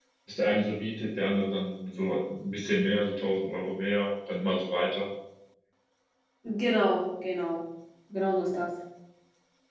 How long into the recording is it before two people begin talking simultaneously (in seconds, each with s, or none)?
none